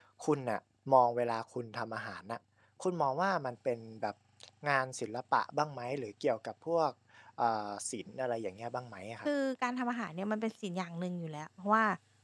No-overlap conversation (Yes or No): Yes